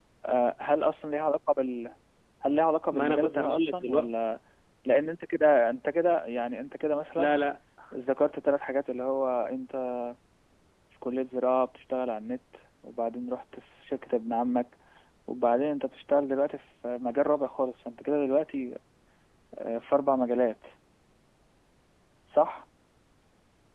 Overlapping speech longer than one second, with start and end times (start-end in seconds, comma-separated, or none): 2.9-4.1